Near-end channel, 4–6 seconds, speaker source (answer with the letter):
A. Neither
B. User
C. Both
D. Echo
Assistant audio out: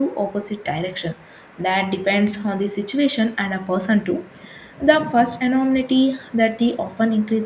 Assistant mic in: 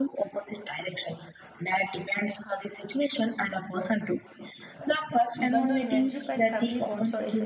C